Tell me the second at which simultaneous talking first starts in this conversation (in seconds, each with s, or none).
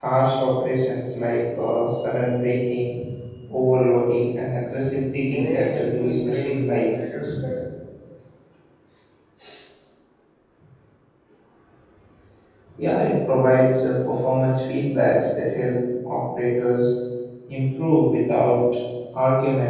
5.3 s